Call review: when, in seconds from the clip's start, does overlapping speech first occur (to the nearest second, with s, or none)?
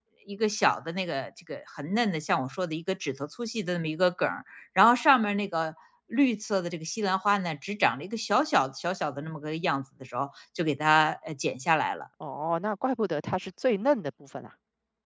none